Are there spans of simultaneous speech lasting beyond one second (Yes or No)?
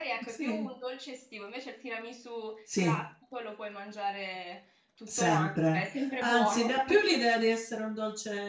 Yes